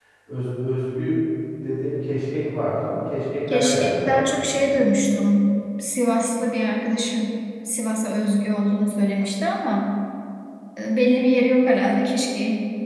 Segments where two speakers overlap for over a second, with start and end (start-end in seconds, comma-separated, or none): 3.5-4.8